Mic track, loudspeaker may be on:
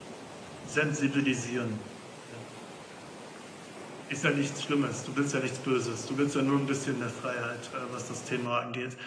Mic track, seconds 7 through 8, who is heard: user only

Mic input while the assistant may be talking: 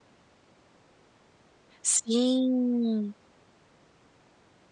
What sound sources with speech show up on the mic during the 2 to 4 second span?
user only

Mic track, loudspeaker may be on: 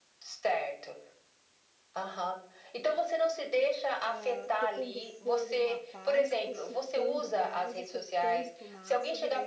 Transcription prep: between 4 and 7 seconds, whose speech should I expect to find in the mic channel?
both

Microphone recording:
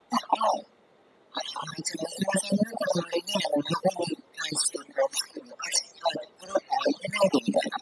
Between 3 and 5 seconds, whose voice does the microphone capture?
echo only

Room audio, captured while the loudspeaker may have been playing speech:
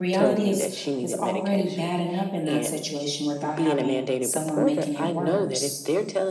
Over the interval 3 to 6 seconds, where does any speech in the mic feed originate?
both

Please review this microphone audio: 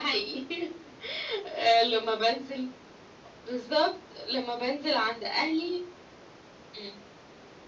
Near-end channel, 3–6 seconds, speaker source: echo only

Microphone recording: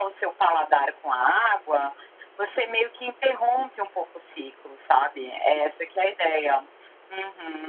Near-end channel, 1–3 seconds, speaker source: echo only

